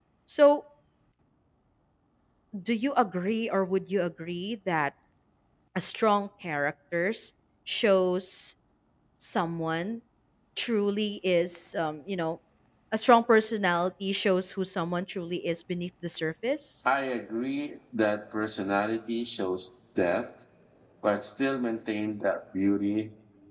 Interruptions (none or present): none